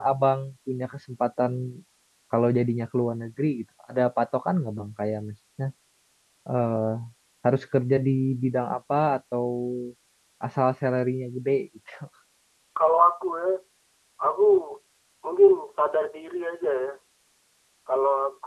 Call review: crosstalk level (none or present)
none